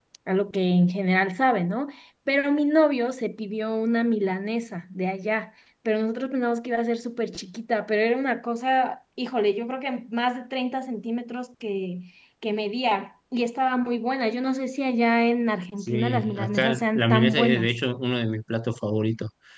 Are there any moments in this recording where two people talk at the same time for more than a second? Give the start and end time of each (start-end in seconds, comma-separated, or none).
15.8-17.7